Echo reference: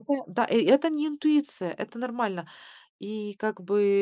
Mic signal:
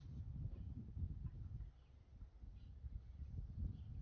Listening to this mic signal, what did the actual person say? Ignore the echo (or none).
none